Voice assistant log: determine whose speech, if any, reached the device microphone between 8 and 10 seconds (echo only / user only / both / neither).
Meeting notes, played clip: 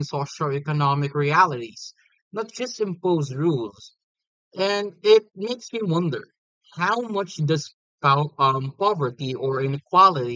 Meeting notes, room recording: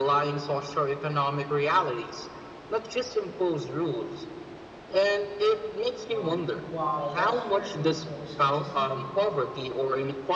both